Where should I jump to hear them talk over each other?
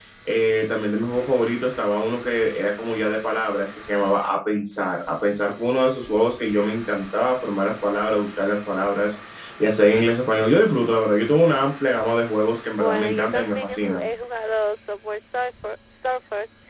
12.8 s

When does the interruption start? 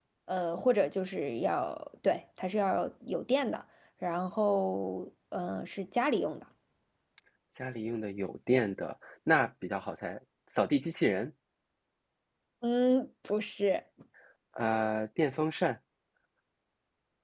none

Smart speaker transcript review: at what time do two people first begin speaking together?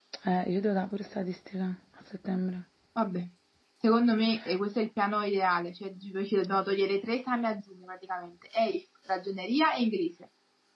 none

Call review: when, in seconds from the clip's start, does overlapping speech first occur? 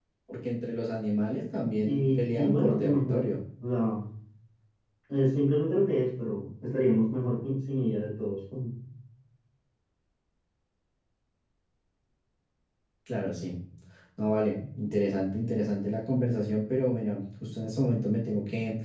1.8 s

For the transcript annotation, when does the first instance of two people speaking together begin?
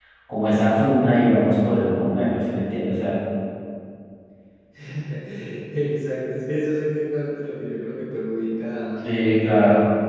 none

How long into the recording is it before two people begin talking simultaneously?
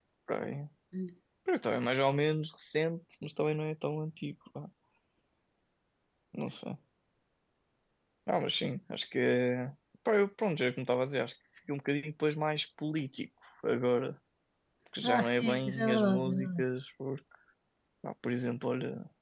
15.0 s

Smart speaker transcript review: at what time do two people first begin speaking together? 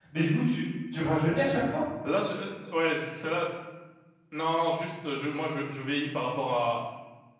none

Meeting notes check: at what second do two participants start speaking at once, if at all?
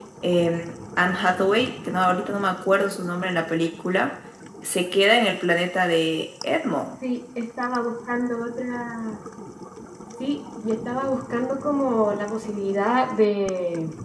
none

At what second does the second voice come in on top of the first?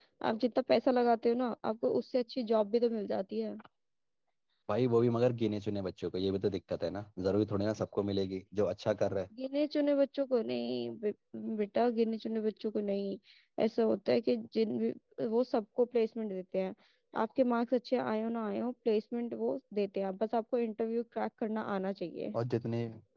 none

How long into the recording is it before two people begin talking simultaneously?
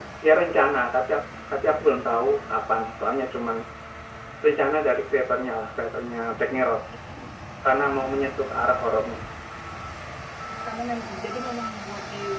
none

